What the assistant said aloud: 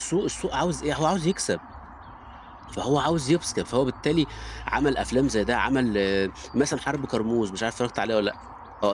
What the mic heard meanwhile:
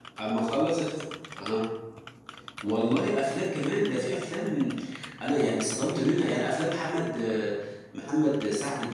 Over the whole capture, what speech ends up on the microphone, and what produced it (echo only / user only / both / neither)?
user only